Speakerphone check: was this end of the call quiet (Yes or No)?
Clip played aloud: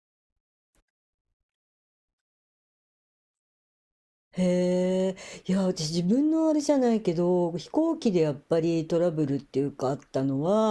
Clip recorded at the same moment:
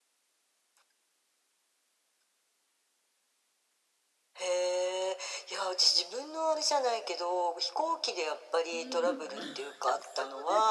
No